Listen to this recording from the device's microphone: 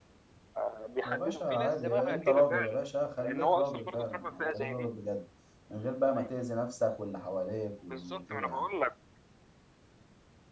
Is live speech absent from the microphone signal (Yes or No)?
No